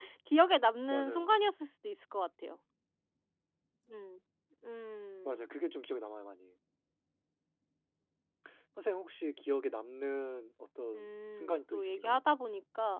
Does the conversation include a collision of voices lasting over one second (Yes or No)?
Yes